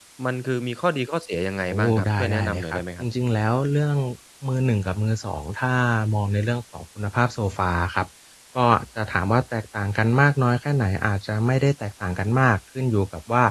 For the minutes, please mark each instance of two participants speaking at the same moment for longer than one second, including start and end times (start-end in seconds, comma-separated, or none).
1.7-3.1